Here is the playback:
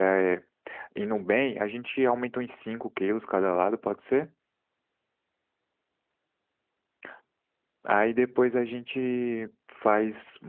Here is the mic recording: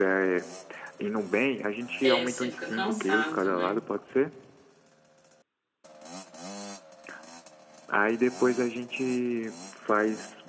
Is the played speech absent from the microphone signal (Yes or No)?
No